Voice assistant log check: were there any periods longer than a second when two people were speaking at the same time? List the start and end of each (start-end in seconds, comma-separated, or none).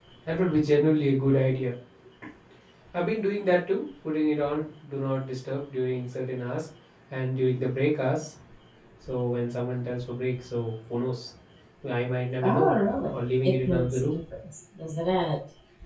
12.4-14.2